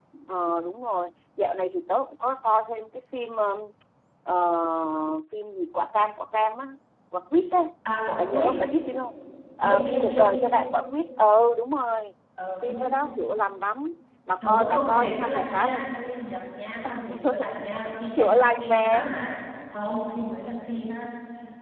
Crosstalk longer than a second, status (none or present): present